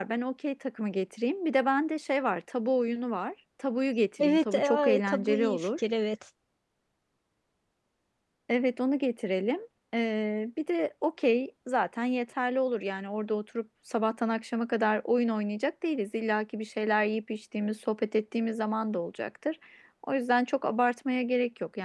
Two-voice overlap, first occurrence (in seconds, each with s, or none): 4.2 s